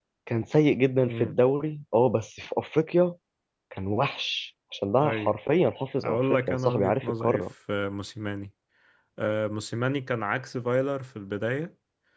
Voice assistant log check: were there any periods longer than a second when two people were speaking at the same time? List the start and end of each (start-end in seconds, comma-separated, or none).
6.0-7.4